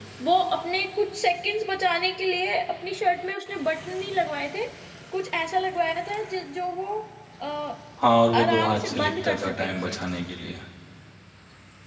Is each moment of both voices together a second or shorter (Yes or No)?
No